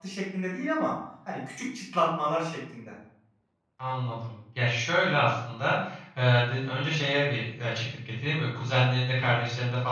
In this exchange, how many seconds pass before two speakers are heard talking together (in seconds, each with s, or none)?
none